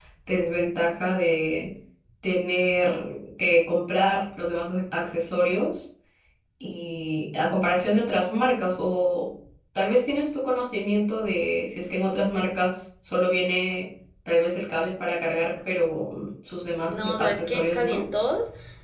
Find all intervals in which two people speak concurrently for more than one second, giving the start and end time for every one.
16.9-18.1

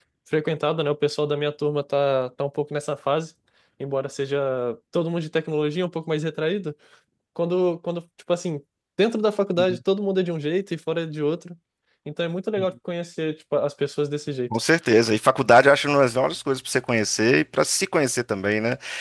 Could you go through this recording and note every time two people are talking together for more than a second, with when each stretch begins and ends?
none

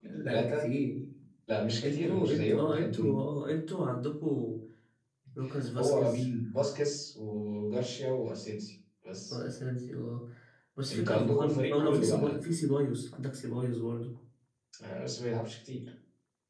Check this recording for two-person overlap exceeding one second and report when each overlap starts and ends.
1.8-3.0, 10.9-12.4

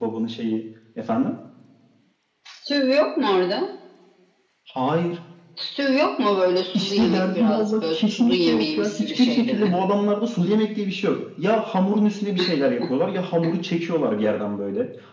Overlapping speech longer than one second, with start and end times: 6.7-9.7

